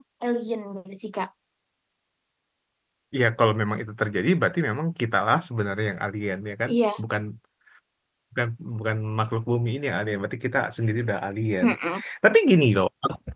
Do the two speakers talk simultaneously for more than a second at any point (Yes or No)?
No